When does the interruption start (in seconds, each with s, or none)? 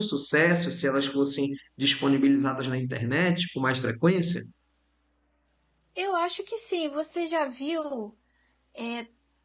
none